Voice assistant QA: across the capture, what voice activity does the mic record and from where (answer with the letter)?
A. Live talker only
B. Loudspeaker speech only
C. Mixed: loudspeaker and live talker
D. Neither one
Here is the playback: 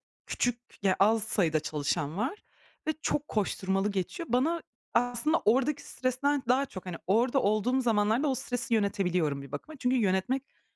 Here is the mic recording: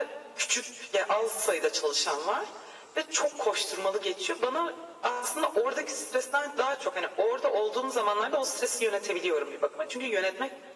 B